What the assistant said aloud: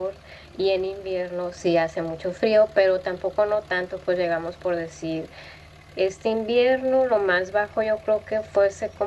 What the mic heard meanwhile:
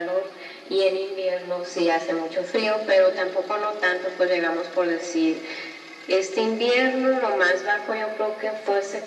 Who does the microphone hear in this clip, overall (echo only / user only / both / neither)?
echo only